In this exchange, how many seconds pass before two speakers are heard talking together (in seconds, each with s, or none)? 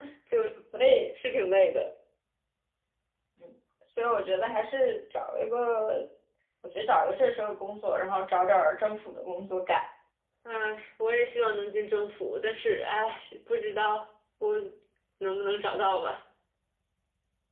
none